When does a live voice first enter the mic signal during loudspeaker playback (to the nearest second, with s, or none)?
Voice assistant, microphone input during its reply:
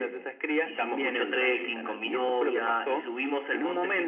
none